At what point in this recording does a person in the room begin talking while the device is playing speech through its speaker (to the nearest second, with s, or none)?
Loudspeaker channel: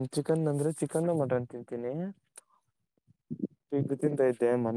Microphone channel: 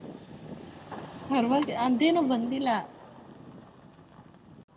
1 s